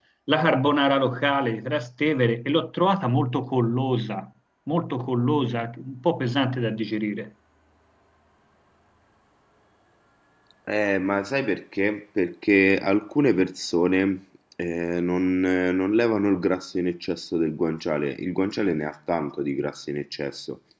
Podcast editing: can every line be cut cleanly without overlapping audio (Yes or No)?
Yes